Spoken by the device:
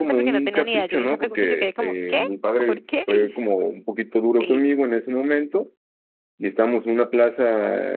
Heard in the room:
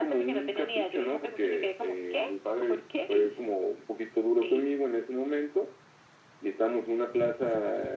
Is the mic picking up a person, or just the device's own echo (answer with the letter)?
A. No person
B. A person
A